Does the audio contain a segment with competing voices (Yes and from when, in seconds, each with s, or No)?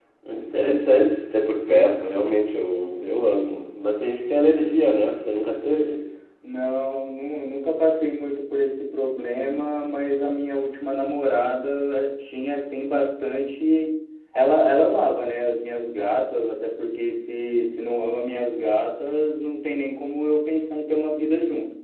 No